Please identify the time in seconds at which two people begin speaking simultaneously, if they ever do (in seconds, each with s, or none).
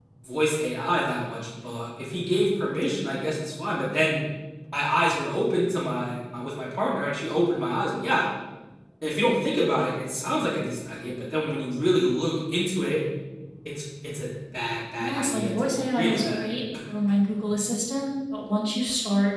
15.0 s